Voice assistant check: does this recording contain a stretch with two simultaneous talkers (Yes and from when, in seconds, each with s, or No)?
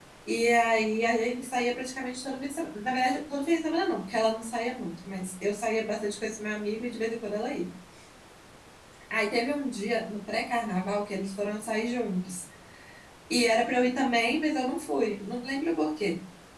No